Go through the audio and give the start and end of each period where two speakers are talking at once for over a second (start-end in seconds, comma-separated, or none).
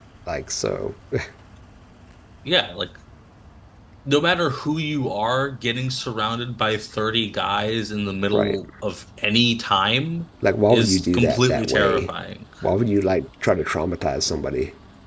10.7-12.1